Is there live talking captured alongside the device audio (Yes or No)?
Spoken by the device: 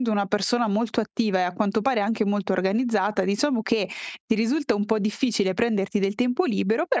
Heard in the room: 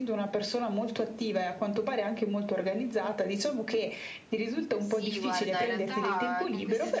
Yes